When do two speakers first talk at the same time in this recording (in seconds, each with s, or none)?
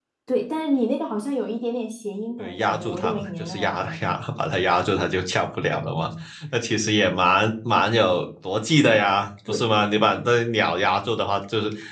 2.4 s